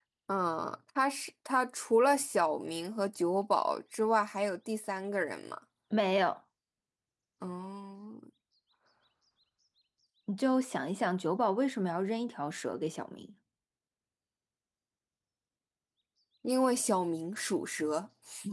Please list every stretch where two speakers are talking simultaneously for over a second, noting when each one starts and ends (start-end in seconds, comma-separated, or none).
none